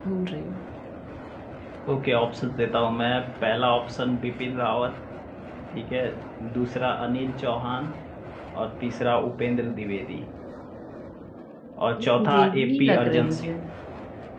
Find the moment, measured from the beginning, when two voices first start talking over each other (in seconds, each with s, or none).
12.0 s